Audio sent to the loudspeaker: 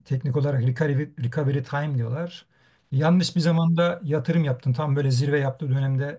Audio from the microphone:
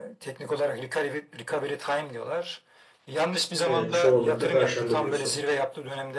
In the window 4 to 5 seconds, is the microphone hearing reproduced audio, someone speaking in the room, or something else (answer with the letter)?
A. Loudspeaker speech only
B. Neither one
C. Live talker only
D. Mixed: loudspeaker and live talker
D